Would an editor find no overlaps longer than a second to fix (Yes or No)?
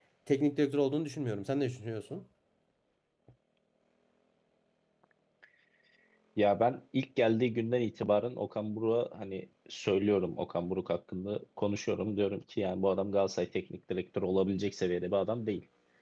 Yes